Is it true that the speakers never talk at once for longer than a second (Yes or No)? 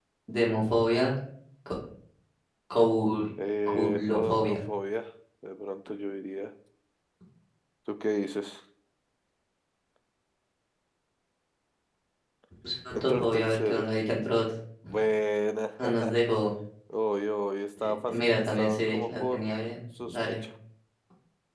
No